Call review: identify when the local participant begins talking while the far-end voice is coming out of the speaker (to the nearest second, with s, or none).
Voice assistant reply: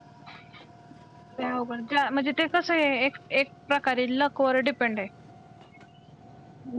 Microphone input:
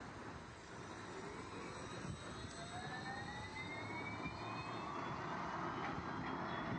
none